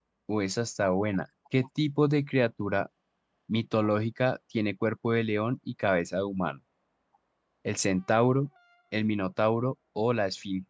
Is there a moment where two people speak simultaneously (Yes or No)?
No